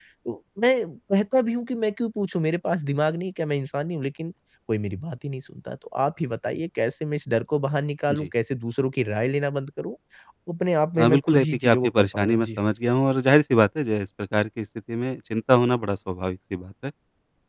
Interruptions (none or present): present